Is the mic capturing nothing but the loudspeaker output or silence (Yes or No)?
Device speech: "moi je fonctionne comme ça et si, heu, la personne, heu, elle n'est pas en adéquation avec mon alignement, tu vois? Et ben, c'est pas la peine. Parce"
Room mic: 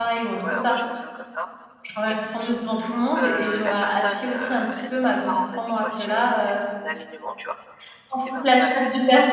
No